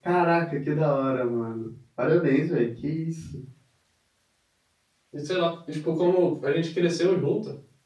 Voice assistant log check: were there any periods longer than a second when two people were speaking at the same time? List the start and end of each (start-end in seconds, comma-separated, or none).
none